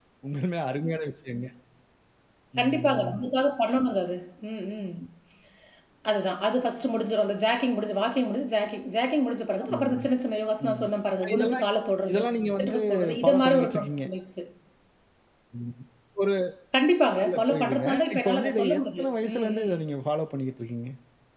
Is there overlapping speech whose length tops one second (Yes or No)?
Yes